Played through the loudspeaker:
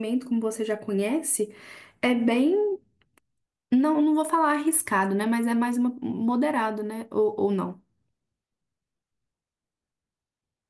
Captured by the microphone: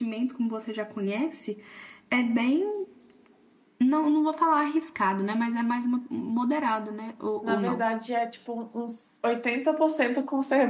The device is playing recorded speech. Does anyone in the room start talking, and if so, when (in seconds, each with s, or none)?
7.4 s